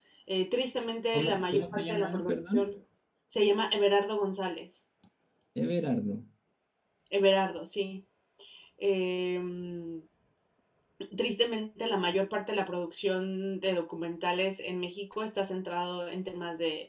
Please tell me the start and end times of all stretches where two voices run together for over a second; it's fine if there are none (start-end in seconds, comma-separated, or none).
1.1-2.7